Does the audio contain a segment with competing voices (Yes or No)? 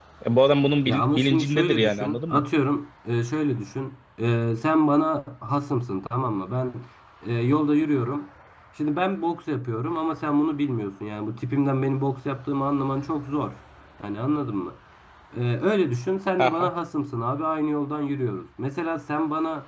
Yes